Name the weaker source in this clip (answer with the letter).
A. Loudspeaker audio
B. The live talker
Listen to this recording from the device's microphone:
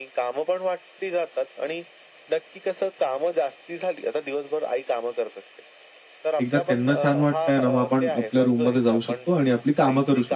A